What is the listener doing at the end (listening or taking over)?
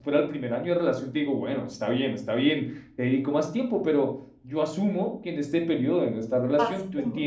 listening